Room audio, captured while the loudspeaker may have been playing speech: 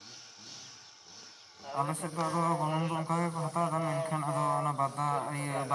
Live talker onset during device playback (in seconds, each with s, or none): 1.8 s